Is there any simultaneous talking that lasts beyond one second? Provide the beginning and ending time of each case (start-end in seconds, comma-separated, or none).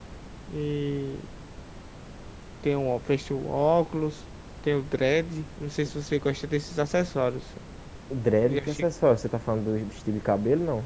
none